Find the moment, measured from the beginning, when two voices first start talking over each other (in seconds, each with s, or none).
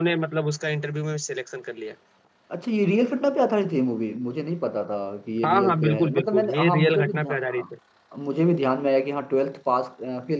5.4 s